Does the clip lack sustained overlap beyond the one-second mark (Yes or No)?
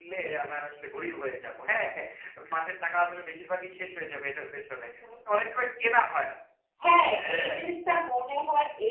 Yes